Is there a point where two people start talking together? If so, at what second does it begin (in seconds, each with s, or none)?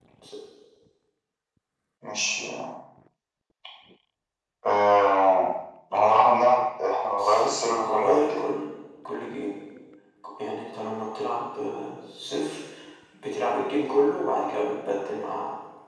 7.2 s